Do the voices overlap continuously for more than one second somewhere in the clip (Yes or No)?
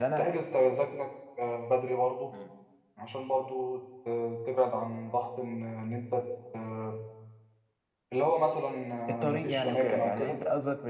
Yes